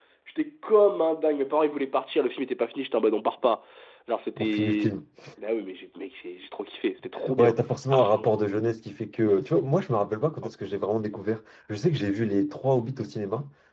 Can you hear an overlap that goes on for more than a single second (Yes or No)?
No